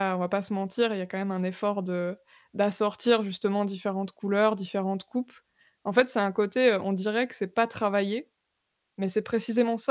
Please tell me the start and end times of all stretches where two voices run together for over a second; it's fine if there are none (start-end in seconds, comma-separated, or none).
none